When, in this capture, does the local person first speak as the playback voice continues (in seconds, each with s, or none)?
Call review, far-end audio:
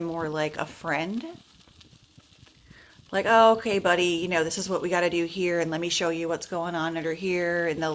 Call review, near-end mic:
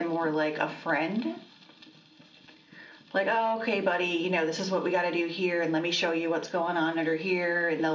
none